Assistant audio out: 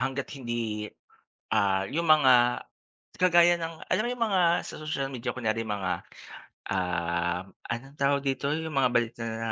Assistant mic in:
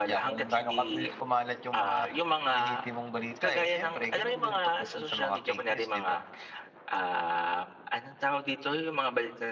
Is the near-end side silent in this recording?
No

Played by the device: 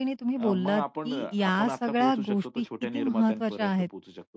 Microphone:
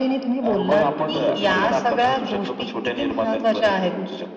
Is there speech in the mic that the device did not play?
Yes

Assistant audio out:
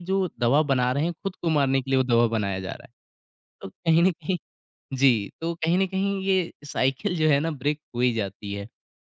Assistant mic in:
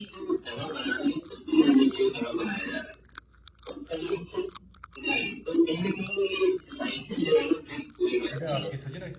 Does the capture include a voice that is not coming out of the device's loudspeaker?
Yes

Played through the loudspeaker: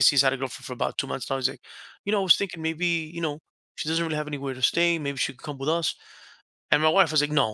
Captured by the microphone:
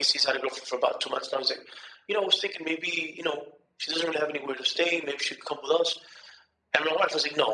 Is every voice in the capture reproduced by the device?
Yes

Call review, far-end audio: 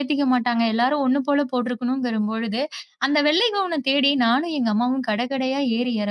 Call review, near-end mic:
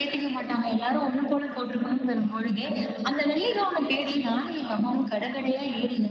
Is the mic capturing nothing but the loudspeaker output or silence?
Yes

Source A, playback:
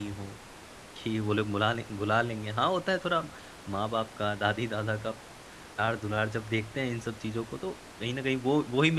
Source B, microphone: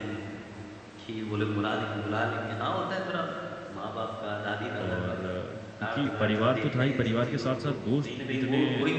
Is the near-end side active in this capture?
Yes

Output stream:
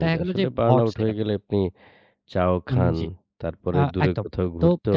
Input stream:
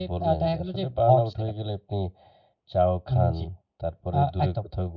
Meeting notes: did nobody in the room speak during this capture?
Yes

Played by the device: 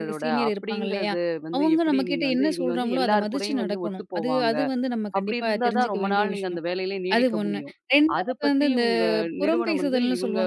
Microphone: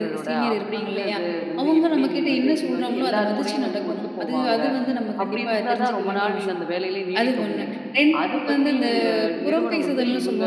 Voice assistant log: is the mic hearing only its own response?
Yes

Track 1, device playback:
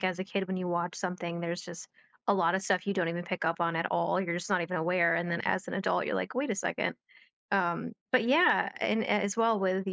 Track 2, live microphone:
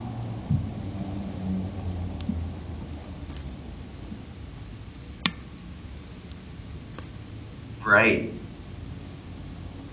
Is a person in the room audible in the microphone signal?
Yes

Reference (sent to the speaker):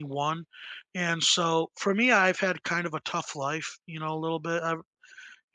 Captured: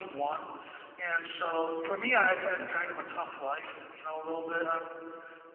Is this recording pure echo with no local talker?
Yes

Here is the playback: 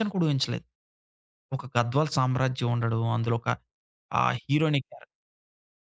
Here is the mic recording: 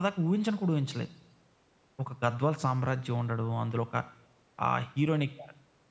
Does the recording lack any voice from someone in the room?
Yes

